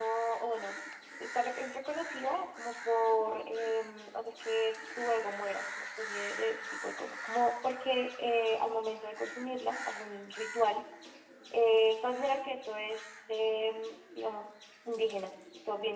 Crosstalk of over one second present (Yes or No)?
No